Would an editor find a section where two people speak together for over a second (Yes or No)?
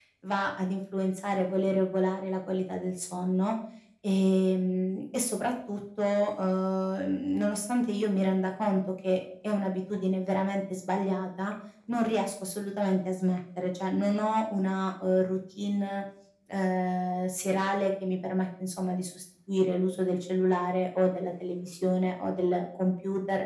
No